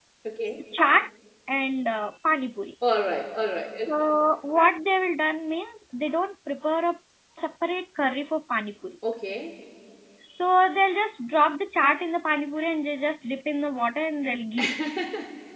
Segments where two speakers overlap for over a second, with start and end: none

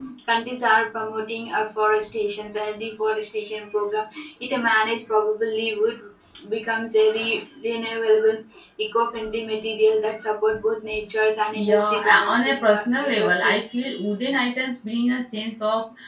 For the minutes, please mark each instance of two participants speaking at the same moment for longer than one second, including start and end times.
11.6-13.6

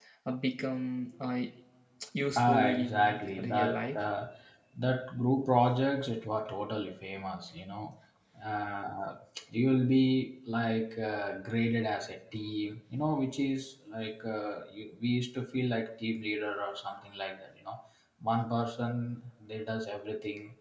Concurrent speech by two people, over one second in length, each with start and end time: 2.4-4.0

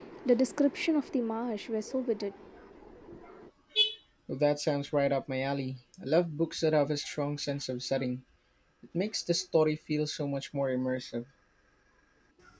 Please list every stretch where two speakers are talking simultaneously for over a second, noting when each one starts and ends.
none

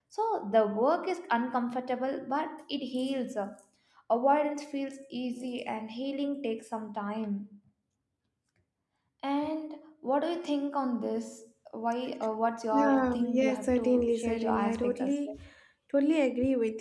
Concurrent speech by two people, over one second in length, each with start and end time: 12.7-15.4

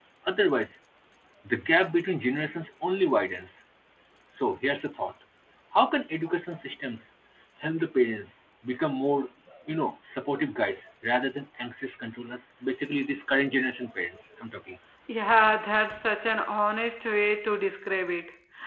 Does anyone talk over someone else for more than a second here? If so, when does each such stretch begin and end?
none

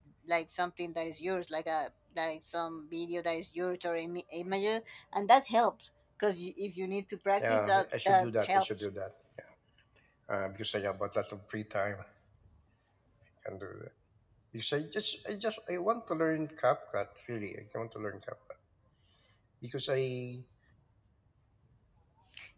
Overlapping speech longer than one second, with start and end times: 7.4-8.7

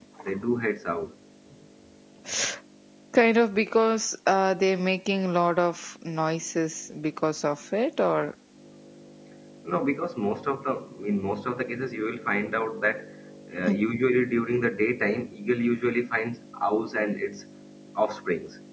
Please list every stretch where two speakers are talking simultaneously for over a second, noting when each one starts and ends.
none

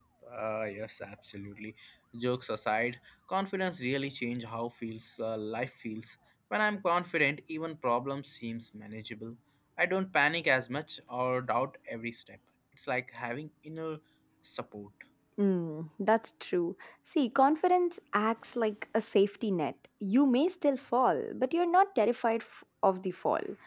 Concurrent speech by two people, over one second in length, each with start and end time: none

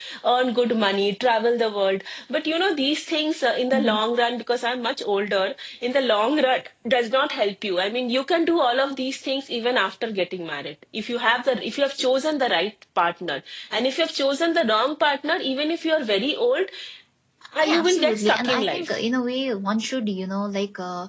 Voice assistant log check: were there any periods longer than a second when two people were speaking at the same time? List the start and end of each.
17.6-18.9

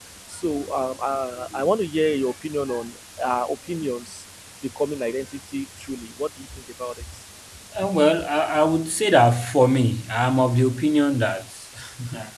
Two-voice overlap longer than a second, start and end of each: none

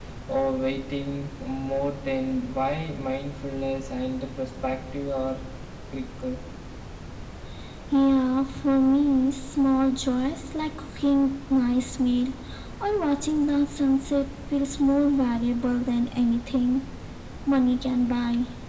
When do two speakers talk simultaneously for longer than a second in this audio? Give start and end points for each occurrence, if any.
none

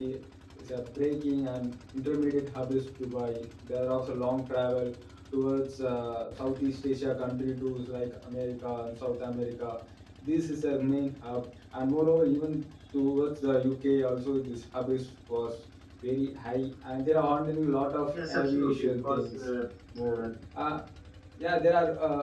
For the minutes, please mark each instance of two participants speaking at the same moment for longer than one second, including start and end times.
18.1-19.3

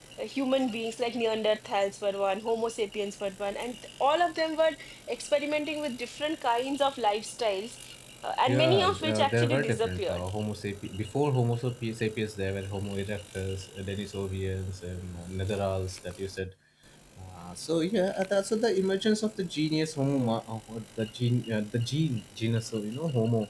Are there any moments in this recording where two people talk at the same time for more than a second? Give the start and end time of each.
8.5-10.2

